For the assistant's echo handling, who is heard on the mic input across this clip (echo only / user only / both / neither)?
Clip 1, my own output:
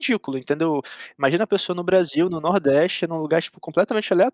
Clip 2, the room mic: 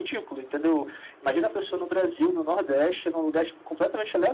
both